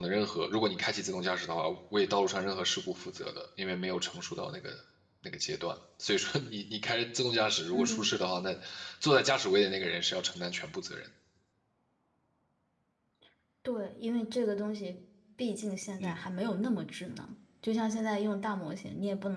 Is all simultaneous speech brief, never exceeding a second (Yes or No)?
Yes